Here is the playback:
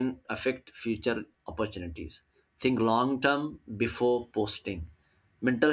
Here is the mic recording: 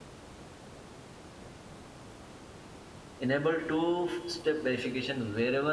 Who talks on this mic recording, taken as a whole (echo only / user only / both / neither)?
user only